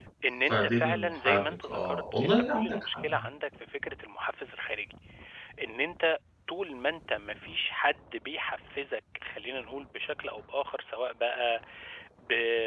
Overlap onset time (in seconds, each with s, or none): 0.5 s